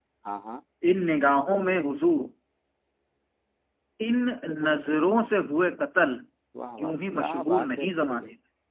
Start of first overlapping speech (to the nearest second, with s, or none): 7 s